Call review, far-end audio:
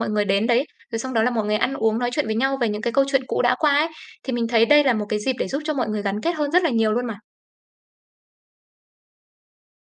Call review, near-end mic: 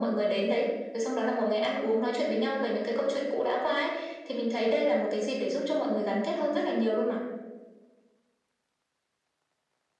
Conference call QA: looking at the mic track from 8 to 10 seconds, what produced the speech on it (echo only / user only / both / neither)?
neither